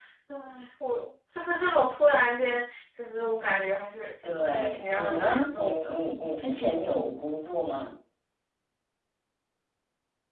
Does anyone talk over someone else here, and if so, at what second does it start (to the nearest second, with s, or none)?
4 s